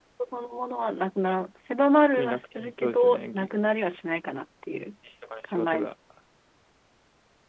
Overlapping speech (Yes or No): Yes